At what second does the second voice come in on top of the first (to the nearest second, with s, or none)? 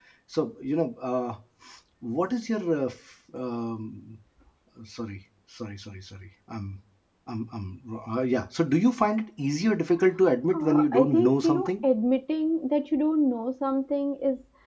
10 s